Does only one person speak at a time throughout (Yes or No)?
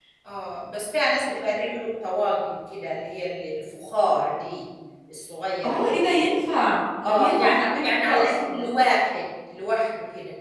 No